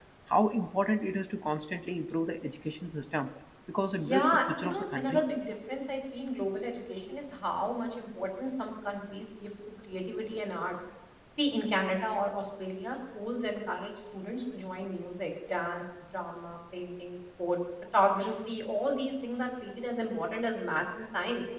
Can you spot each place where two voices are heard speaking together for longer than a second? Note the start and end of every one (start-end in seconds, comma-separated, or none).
3.9-5.2